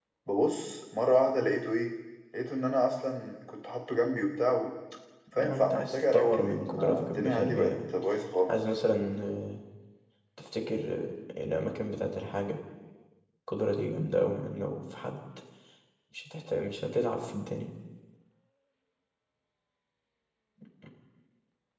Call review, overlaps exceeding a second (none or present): present